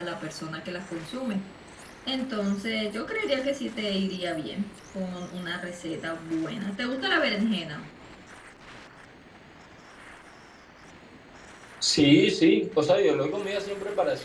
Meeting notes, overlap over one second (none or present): none